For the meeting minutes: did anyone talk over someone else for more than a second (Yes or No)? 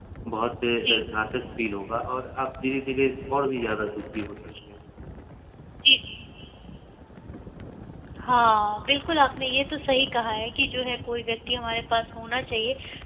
No